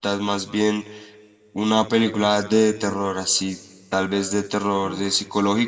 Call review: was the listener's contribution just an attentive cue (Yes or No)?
Yes